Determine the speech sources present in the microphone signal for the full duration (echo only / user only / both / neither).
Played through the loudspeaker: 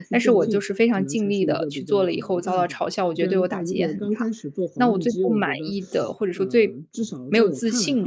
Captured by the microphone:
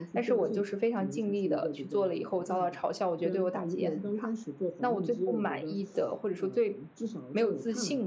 echo only